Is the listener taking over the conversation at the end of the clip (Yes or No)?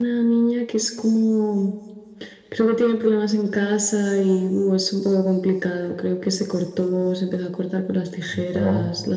No